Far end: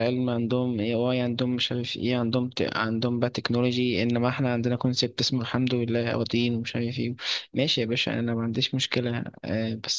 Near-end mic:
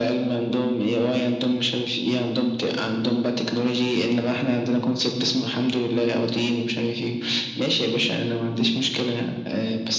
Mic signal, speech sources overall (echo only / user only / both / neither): echo only